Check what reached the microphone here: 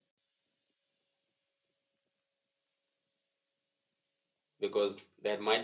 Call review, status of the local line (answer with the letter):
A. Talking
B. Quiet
A